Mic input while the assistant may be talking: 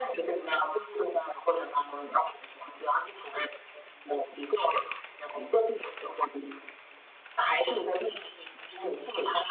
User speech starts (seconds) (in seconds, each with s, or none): none